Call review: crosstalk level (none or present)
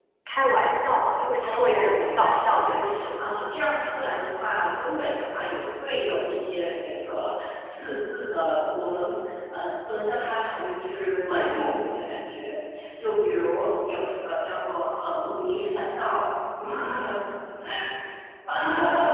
present